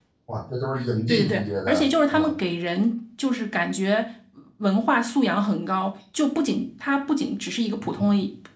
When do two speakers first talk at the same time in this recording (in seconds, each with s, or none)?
1.1 s